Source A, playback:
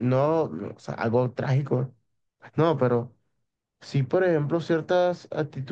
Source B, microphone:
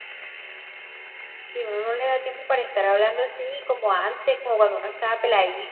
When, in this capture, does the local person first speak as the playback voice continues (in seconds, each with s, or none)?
1.5 s